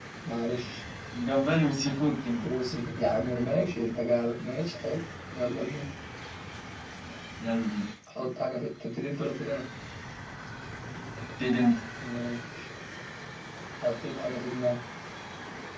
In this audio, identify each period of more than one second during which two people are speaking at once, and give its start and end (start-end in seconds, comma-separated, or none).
none